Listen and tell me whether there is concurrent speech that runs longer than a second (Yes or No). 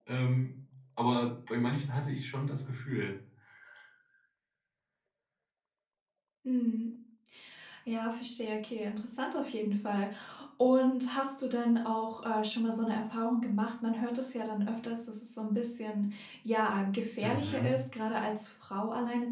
No